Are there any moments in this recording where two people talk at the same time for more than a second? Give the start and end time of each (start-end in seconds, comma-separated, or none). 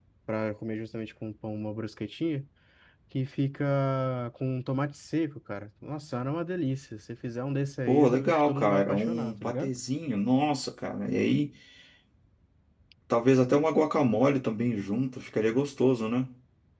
7.9-9.7